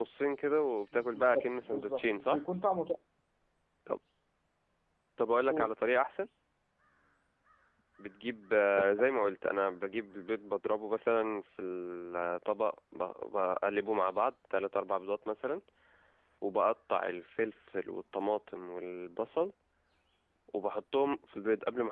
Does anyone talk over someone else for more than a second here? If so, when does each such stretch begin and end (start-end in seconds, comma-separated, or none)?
0.9-2.4